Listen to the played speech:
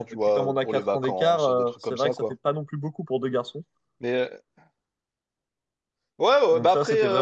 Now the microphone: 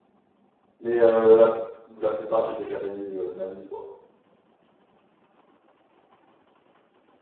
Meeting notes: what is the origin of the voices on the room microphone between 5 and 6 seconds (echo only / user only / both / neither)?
neither